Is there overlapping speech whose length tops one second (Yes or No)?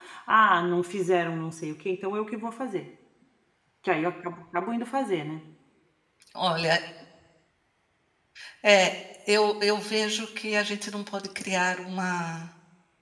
No